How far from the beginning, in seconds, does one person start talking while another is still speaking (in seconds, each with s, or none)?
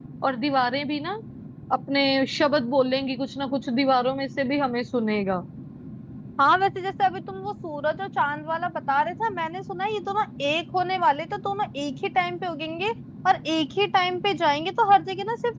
none